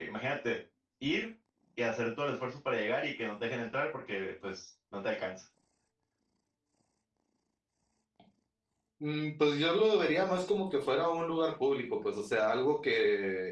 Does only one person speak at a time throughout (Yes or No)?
Yes